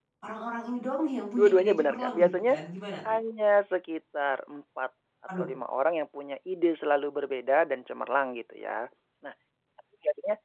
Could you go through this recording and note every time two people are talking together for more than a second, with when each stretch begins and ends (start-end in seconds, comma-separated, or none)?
1.4-2.6